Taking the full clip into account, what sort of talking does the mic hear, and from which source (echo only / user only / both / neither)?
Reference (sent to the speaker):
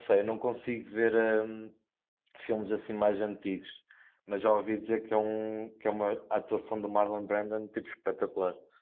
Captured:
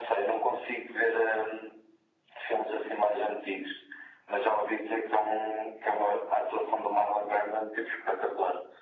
echo only